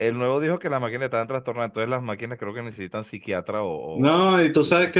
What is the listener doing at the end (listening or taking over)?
taking over